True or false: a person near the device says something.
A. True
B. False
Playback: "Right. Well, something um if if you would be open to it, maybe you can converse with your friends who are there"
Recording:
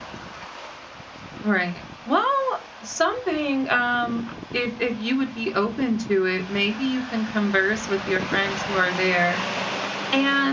B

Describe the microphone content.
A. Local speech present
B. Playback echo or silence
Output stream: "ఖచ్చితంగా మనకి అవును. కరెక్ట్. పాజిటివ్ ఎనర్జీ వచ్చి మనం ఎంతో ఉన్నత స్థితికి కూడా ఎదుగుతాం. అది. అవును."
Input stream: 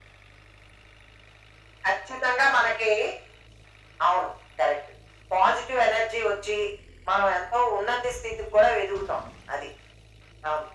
B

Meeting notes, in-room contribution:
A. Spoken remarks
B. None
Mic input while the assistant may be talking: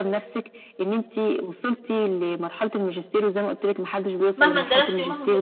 A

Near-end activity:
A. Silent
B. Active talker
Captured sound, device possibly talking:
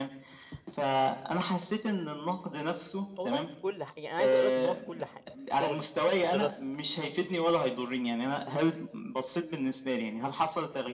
B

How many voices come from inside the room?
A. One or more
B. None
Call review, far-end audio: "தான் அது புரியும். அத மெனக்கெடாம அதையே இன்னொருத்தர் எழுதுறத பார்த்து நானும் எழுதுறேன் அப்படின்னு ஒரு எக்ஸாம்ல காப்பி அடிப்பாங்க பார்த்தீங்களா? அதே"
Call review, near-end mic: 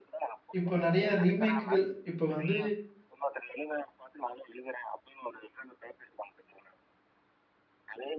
A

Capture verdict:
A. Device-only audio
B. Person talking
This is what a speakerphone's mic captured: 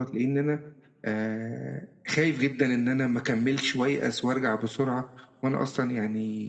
A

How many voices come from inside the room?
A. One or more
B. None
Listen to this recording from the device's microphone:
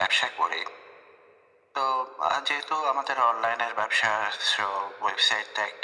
B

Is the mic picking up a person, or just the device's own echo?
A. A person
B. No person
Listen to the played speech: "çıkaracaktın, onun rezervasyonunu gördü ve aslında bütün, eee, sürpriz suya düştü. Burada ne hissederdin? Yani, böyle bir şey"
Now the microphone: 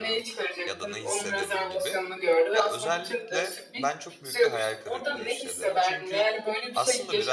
A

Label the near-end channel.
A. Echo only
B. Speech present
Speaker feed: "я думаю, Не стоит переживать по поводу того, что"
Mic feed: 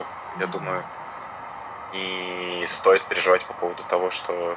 B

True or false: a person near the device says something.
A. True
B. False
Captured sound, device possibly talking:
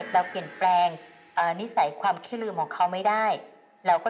B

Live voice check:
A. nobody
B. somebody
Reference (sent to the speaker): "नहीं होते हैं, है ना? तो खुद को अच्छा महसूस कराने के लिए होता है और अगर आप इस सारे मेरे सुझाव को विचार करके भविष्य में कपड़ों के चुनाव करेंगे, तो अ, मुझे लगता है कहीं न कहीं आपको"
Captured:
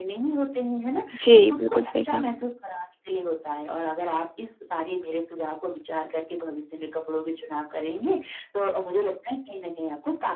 B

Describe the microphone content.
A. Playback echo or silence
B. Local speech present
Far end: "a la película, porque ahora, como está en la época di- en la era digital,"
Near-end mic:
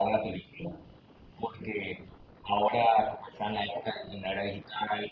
A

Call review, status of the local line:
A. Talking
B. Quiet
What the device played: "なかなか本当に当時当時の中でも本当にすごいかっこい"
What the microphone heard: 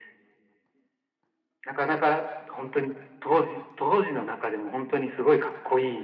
B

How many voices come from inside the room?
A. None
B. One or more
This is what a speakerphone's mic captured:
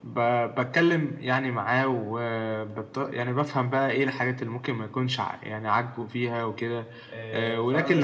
B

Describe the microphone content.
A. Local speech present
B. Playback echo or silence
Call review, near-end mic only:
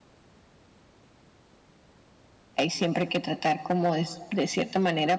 A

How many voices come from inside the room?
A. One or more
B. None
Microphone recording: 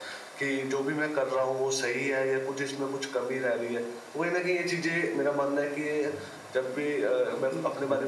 A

